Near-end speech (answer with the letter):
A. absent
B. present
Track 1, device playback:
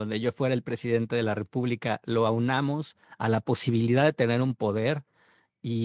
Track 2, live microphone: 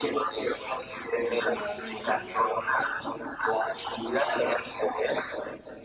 B